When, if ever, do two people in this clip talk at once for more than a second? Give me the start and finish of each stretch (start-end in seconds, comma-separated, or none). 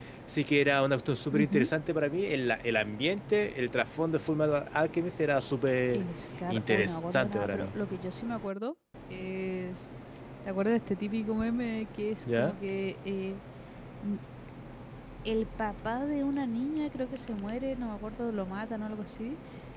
6.5-7.7